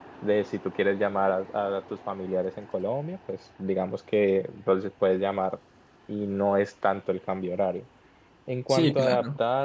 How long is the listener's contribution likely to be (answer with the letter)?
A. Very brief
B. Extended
A